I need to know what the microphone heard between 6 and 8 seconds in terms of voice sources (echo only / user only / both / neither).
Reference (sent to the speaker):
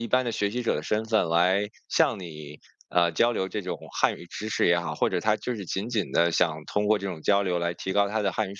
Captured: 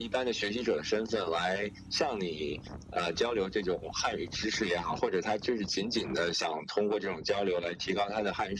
echo only